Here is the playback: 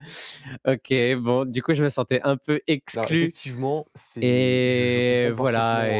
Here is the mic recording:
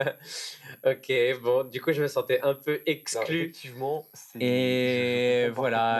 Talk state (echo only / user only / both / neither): echo only